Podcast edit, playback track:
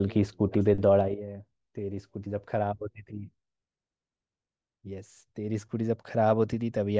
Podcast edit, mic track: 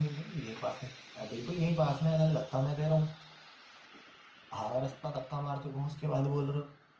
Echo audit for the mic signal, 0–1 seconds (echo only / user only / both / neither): user only